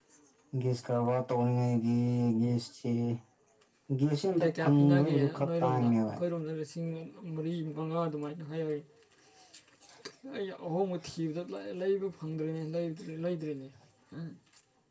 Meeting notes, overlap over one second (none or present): present